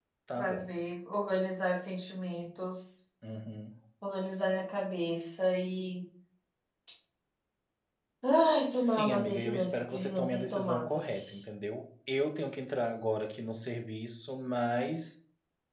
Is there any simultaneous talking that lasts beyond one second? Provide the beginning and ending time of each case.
8.8-11.4

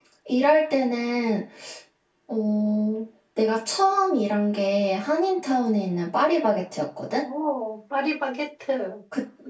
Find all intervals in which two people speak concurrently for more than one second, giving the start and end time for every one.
none

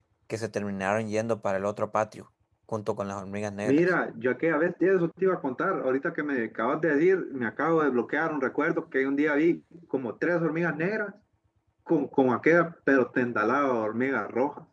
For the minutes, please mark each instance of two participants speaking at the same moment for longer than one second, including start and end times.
none

